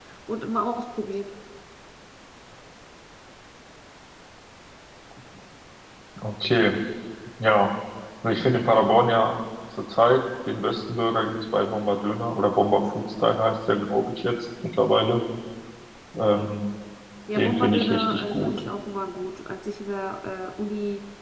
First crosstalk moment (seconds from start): 17 s

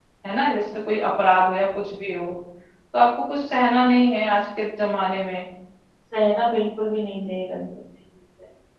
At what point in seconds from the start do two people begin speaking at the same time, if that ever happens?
none

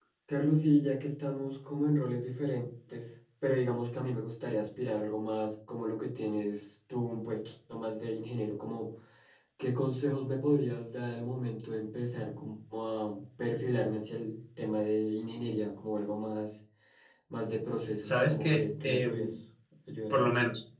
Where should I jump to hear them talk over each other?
18 s

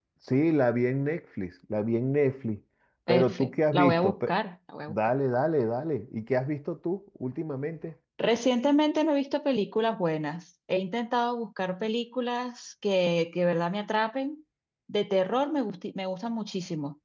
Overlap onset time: 3 s

